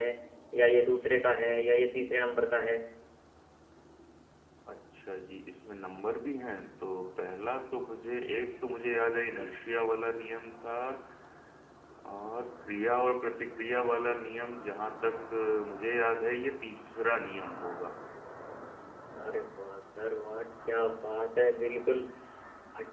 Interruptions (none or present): none